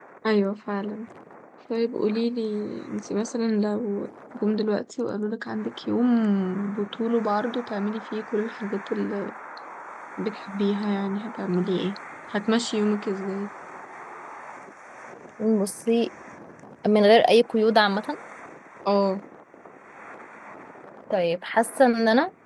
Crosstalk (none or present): none